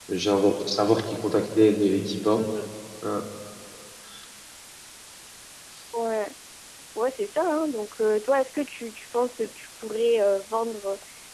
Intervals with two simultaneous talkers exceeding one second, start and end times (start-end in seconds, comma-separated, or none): none